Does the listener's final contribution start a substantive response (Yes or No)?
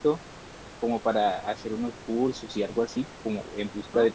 No